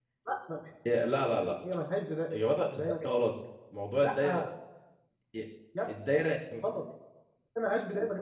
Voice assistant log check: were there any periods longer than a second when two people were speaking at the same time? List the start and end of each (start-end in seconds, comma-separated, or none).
none